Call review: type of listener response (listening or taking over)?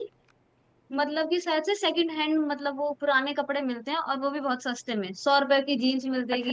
taking over